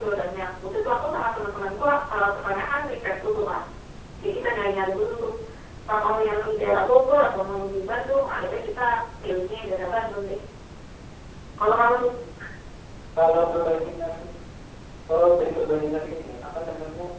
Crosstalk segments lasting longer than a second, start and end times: none

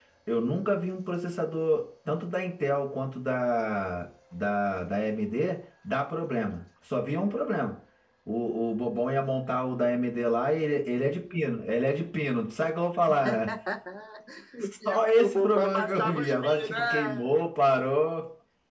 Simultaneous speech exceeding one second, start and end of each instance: 14.8-17.4

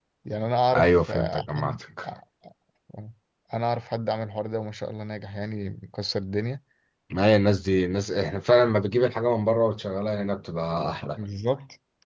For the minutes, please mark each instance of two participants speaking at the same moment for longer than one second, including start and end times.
0.8-2.0

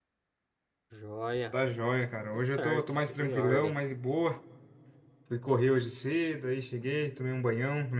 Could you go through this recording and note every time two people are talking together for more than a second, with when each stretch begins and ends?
2.2-3.7

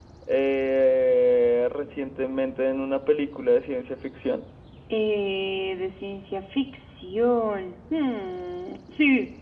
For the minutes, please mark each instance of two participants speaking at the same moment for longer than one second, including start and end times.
none

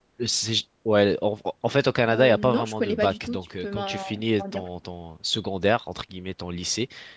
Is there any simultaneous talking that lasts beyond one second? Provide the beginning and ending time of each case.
2.1-4.0

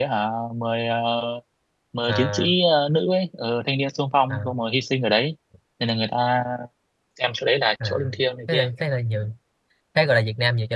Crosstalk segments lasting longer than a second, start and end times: none

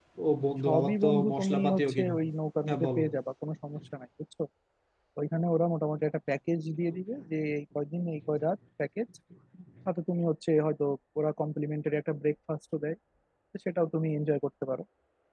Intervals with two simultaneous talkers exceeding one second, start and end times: 0.7-2.1

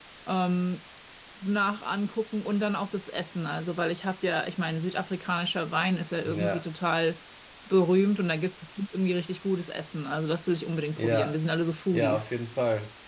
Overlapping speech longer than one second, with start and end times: none

